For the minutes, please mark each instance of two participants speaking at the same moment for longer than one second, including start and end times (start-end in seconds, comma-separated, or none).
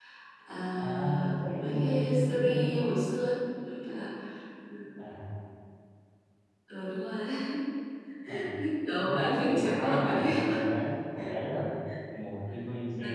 0.8-2.9, 9.0-10.5